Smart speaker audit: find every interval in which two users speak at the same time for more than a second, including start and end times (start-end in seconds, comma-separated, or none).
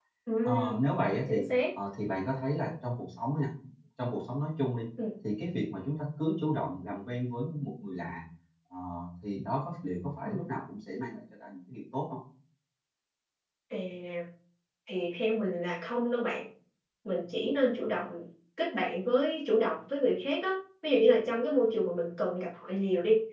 none